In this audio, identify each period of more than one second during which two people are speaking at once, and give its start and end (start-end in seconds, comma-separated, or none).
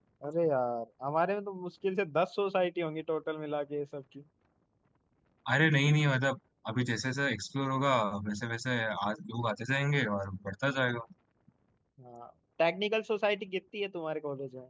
none